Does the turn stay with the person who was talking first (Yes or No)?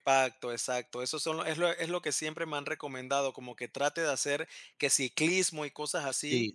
Yes